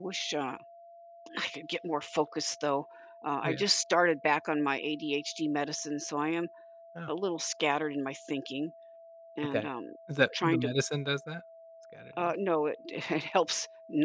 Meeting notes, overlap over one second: none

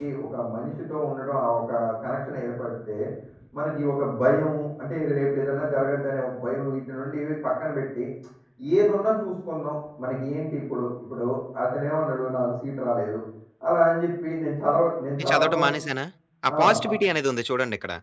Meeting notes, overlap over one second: none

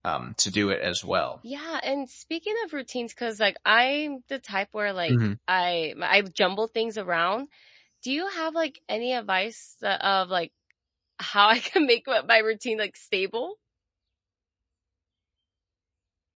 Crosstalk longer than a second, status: none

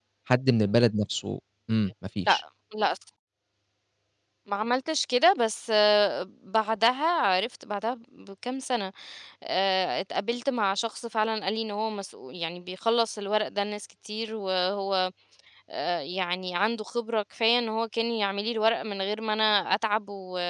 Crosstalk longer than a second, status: none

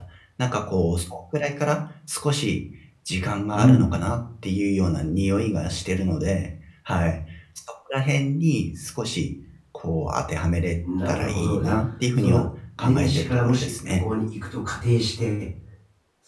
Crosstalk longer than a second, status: present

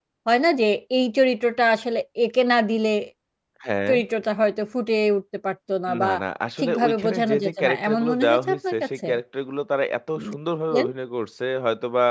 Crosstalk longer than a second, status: present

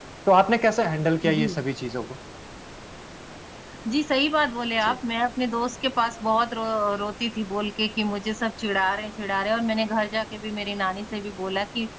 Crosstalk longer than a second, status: none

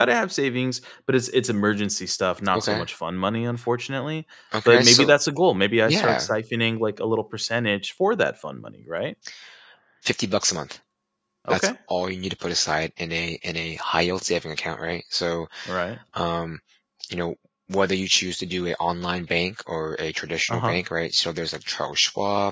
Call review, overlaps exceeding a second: none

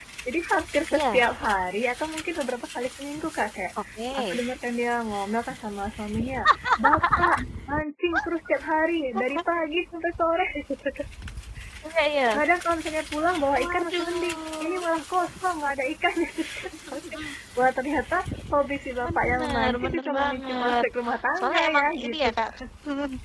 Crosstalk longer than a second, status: present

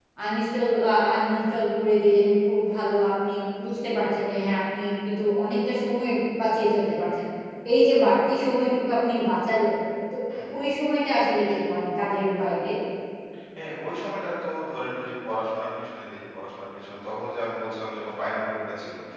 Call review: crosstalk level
none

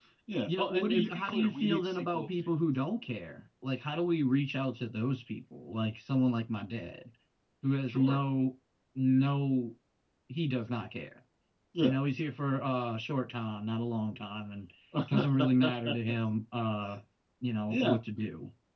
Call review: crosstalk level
present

